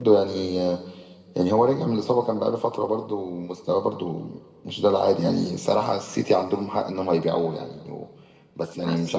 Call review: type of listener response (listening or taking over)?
listening